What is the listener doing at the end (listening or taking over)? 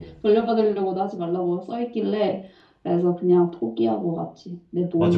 taking over